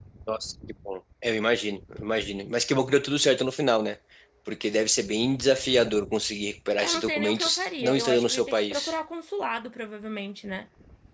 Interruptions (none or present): present